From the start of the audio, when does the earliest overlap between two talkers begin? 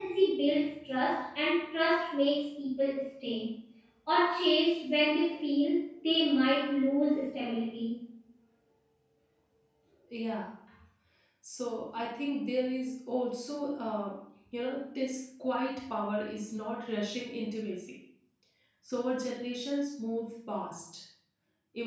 none

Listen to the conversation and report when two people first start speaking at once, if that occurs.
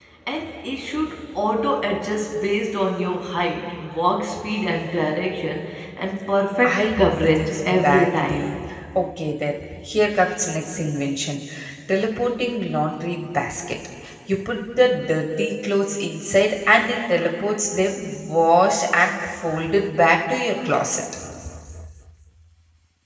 6.6 s

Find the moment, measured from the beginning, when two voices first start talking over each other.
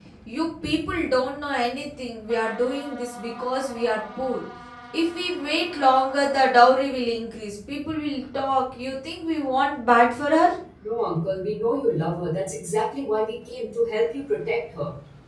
none

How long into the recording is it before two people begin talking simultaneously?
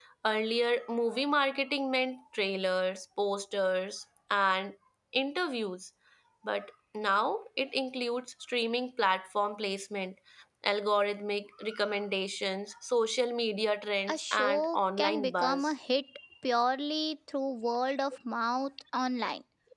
14.1 s

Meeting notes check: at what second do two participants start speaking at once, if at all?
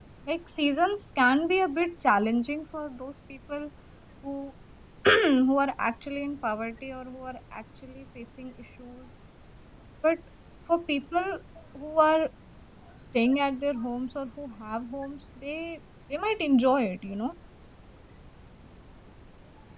none

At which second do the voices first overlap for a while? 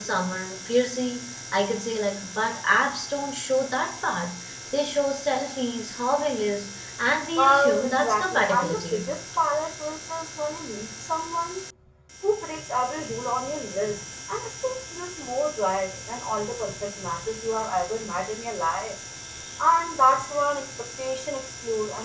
7.4 s

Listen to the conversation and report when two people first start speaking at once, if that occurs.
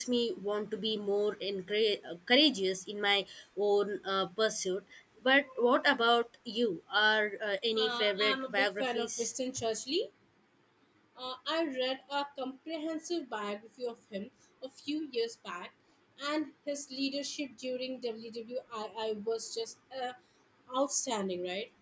7.8 s

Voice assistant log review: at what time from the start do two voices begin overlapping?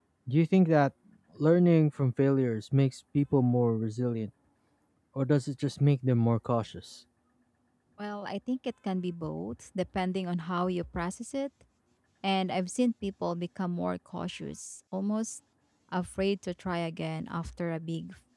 none

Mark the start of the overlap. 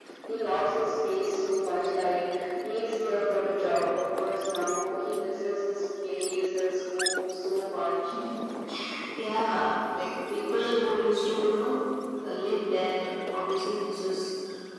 none

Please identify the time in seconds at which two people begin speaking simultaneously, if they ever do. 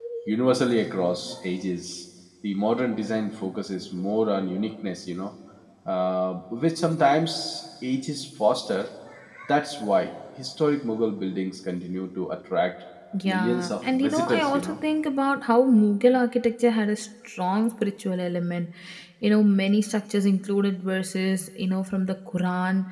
13.2 s

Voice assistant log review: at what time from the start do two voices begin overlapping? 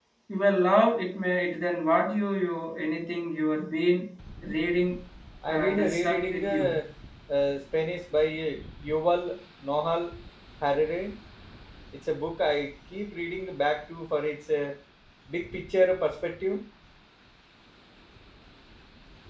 5.5 s

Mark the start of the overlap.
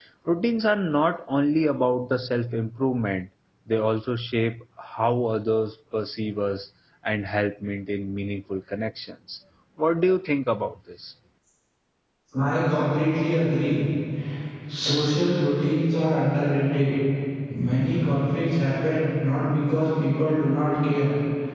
none

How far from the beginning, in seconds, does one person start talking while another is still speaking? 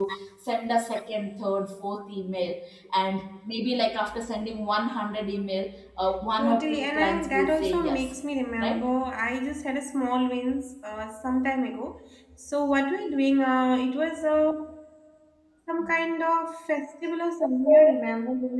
6.4 s

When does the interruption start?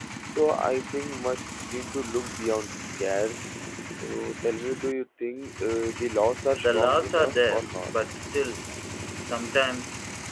6.6 s

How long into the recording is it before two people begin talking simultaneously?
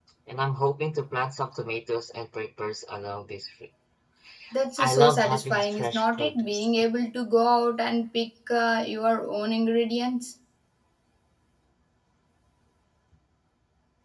4.8 s

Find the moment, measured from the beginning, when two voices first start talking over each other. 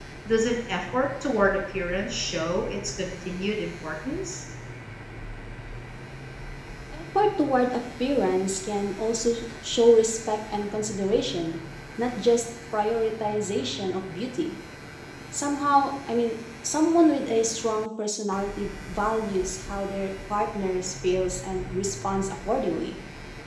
none

